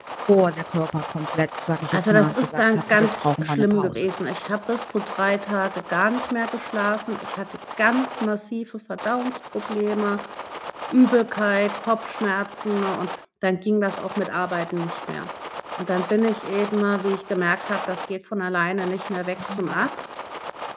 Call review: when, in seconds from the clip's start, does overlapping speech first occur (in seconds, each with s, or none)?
1.9 s